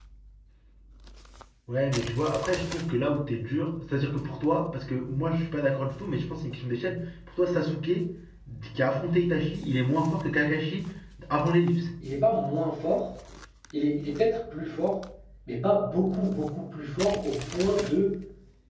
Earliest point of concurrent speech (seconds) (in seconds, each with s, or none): none